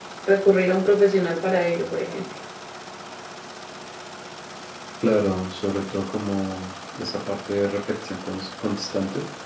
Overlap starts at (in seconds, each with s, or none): none